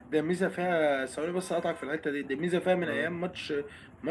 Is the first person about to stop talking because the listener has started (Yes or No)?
No